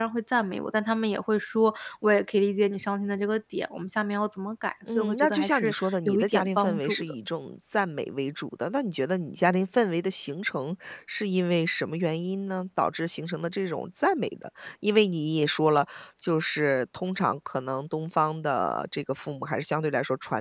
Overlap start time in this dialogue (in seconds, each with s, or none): 4.9 s